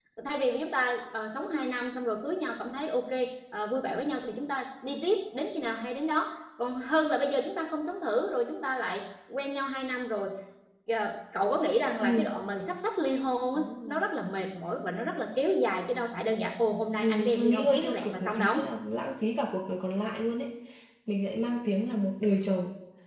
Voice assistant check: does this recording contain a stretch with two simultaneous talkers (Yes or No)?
Yes